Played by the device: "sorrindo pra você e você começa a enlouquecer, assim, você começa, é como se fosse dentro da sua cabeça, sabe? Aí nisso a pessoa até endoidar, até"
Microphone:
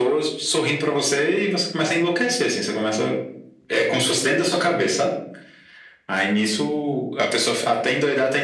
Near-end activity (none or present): none